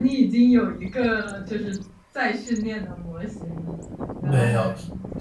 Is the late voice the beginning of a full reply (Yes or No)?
Yes